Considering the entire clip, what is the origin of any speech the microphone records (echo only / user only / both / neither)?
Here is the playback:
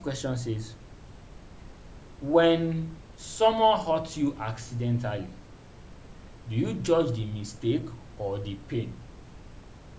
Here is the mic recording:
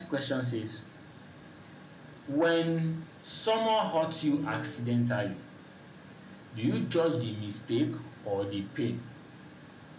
both